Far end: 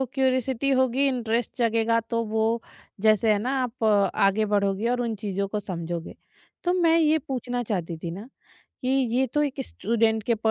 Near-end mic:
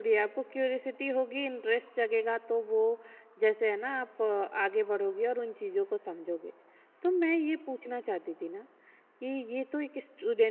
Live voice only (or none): none